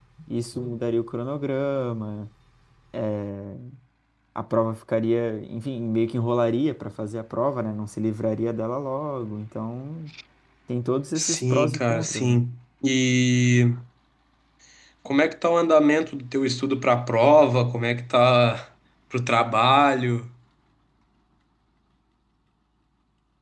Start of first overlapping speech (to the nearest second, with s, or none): 11 s